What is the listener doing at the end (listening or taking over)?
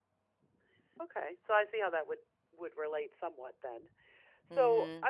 taking over